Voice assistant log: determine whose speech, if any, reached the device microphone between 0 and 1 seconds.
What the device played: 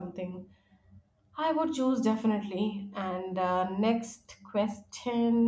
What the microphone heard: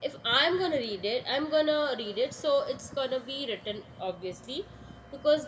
user only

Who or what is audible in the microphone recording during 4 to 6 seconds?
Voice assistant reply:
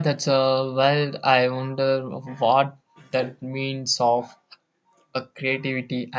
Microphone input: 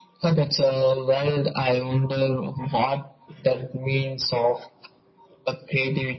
echo only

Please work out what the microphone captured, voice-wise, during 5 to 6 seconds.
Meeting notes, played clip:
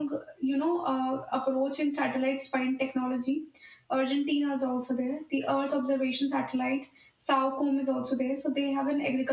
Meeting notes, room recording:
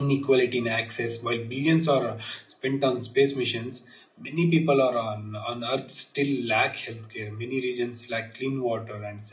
user only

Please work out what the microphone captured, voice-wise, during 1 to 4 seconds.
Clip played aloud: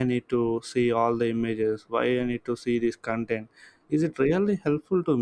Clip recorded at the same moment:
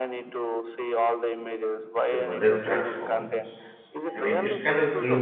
both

